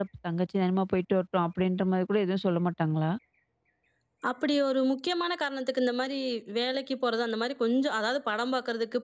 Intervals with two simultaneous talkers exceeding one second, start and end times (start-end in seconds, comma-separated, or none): none